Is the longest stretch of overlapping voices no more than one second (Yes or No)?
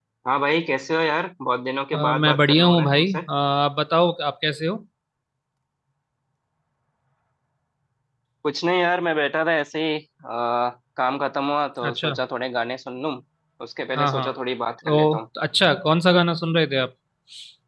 No